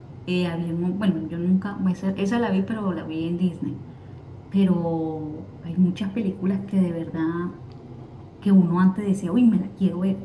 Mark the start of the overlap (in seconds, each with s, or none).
none